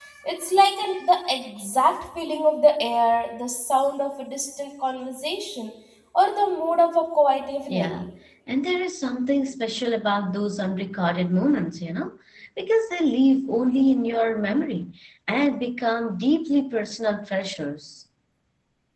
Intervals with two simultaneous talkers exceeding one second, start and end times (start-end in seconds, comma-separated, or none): none